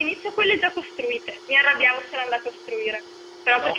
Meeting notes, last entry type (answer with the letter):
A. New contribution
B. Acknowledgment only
B